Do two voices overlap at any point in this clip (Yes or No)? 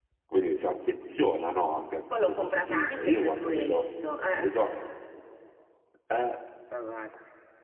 Yes